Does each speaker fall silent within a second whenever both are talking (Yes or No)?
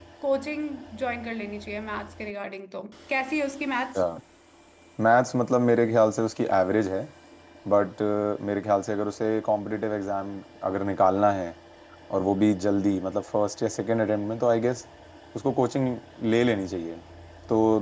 Yes